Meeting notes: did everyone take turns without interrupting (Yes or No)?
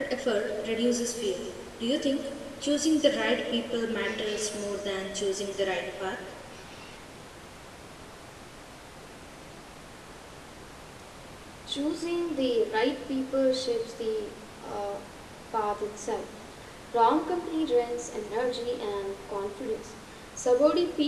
Yes